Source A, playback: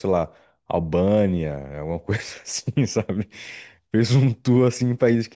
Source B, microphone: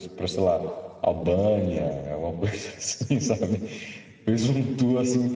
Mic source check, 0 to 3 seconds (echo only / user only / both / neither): echo only